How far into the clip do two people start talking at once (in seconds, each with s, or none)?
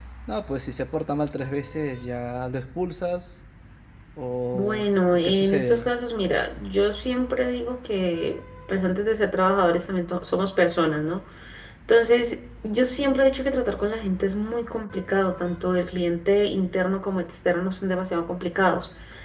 4.5 s